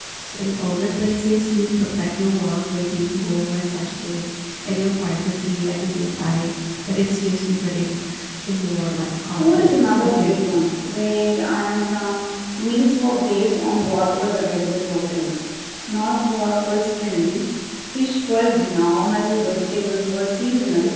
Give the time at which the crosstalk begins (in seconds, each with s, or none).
9.4 s